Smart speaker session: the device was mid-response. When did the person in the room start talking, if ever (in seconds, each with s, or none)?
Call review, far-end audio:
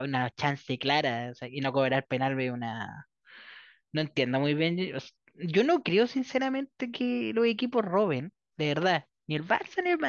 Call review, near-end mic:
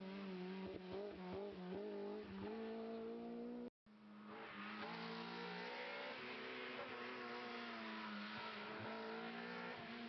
none